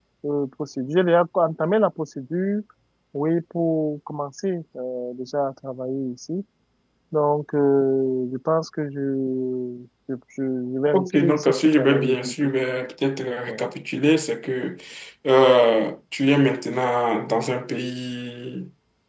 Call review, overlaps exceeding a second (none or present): present